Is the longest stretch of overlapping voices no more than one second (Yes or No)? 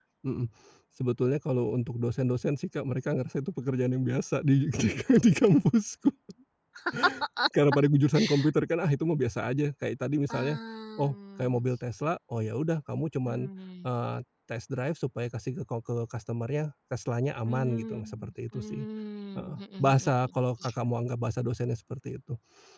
No